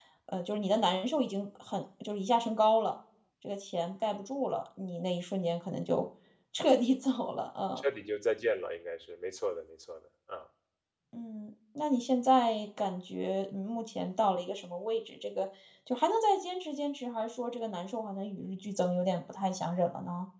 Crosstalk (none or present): none